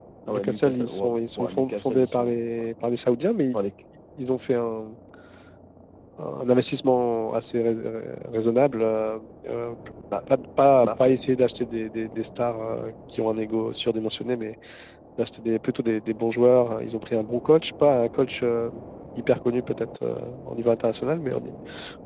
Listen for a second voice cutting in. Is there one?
Yes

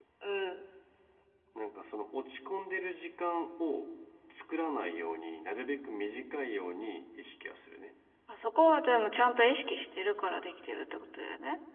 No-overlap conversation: Yes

